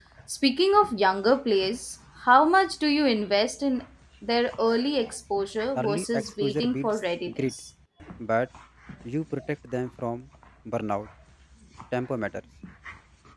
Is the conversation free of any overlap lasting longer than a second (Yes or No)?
No